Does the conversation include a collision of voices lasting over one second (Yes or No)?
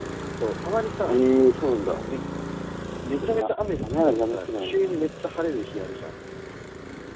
Yes